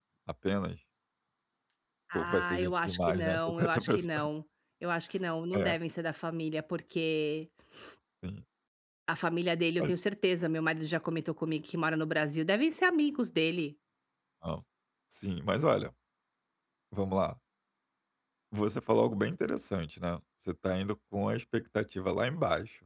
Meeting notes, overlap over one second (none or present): present